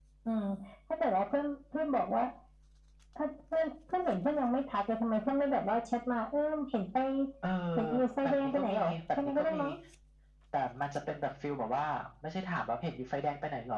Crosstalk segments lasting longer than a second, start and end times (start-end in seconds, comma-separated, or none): 8.2-9.6